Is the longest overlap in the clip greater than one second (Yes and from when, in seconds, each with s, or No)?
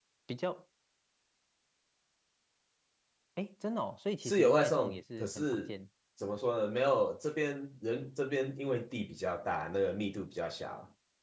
Yes, from 4.2 s